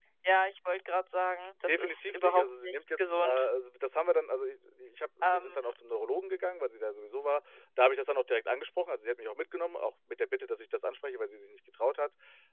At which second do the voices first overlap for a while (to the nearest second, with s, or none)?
2 s